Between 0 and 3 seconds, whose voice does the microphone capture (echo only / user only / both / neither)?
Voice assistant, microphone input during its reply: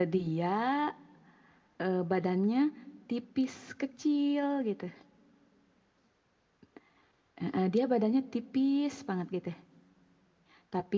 user only